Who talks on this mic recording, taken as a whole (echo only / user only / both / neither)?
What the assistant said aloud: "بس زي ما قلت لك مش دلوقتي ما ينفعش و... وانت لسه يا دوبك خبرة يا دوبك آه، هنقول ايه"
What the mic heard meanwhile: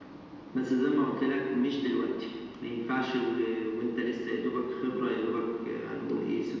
echo only